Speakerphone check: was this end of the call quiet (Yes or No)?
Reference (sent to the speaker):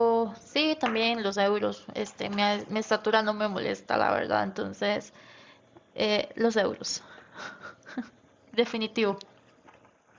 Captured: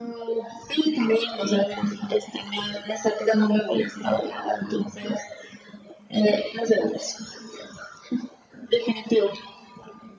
Yes